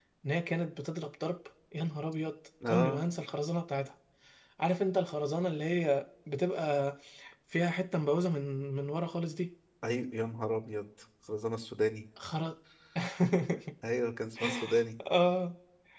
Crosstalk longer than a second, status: none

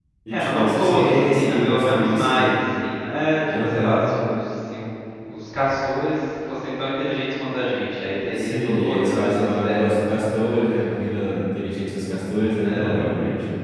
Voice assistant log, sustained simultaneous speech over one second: present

